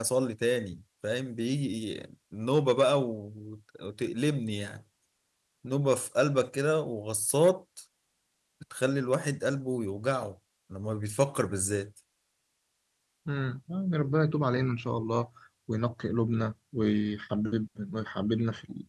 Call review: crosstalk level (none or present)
none